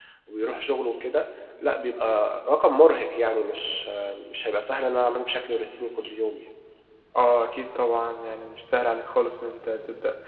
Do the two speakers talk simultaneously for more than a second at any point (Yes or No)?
No